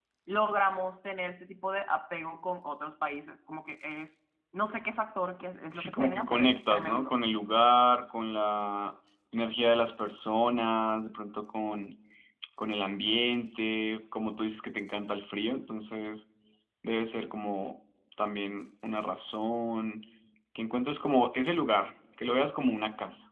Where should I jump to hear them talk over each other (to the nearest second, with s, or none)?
6 s